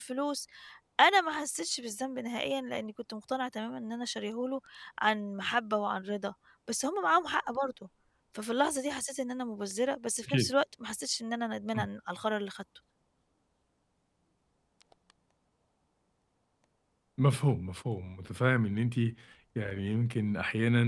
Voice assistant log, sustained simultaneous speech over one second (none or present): none